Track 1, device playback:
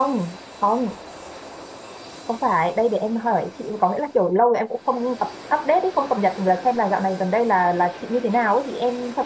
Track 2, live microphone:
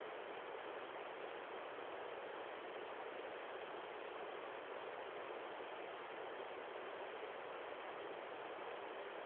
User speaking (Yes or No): No